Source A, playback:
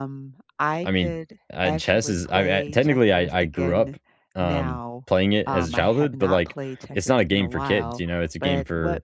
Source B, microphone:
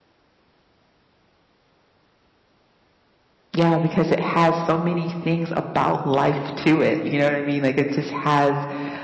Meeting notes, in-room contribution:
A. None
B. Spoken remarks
B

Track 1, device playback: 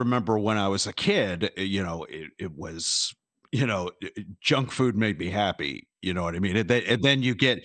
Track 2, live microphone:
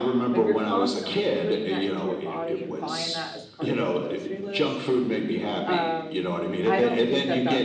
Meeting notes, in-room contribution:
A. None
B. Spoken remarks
B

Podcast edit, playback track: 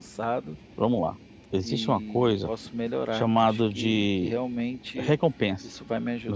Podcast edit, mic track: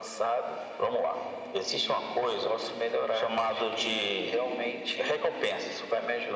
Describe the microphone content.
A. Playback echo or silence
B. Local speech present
A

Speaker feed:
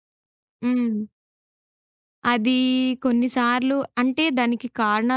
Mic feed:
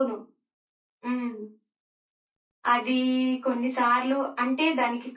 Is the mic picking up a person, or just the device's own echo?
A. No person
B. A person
A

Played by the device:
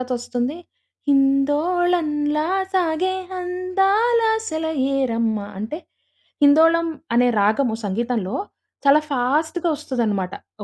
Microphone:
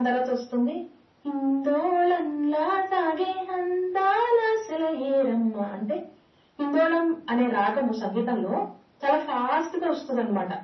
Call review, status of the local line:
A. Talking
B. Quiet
B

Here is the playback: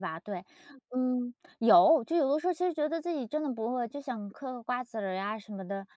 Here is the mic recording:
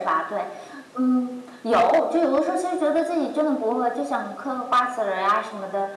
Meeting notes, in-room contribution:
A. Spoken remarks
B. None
B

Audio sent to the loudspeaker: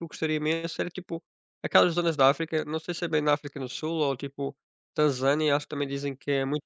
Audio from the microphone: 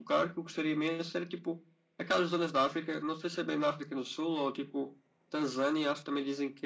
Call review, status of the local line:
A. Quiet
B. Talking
A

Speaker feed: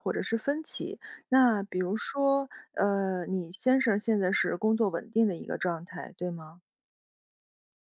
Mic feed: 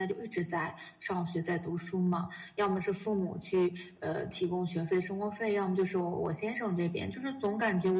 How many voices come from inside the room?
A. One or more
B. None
A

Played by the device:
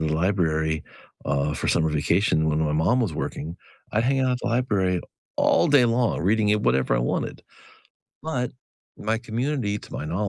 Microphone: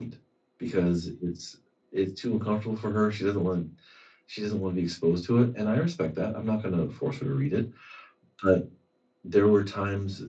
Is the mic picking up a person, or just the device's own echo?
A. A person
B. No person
A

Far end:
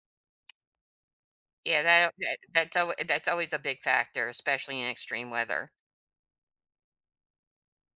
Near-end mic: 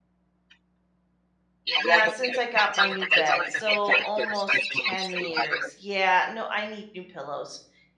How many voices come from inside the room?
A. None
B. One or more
B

